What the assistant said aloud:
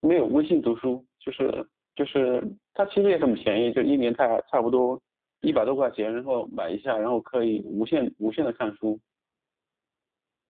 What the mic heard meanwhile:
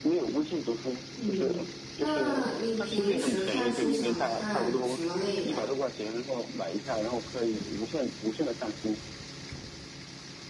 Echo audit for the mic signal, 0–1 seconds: echo only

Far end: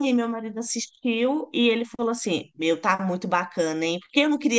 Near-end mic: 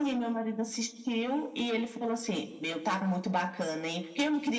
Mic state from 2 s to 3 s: echo only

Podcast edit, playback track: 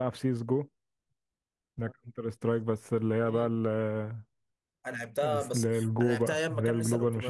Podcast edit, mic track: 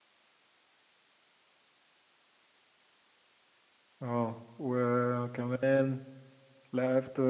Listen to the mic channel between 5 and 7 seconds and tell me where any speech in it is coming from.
user only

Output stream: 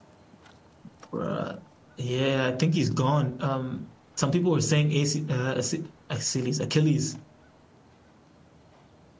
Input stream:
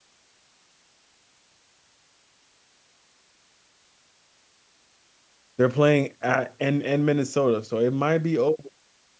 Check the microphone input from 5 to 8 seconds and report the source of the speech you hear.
user only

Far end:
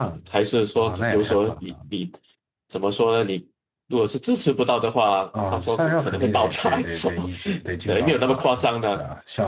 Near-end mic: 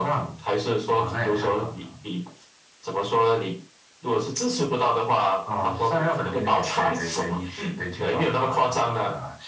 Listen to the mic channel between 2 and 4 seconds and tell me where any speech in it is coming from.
echo only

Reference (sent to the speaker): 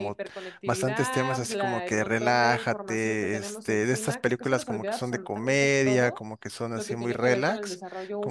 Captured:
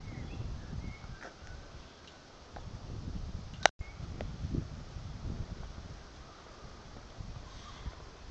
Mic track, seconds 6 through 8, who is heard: neither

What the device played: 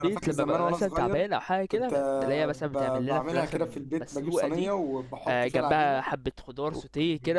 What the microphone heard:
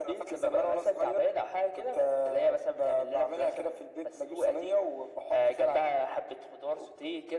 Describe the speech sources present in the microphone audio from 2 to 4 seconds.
echo only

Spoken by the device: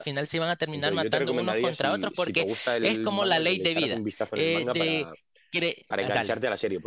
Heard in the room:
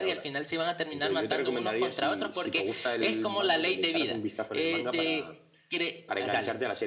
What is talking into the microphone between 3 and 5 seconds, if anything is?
echo only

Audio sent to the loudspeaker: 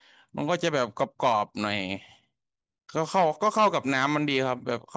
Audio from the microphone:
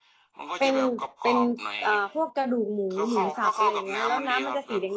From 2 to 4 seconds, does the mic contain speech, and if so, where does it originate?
both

